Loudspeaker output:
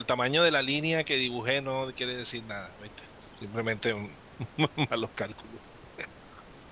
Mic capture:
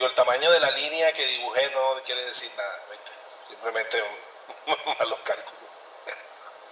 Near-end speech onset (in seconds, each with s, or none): none